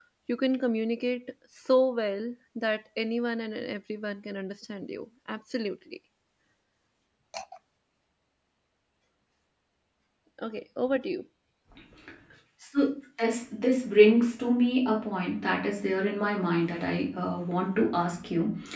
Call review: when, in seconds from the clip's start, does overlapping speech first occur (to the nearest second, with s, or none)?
none